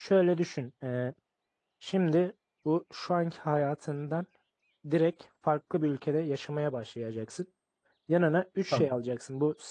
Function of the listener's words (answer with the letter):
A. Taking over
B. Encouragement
B